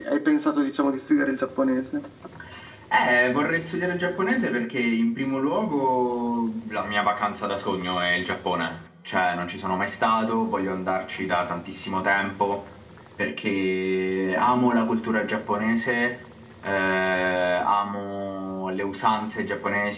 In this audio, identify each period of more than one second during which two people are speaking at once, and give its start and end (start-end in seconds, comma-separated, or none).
none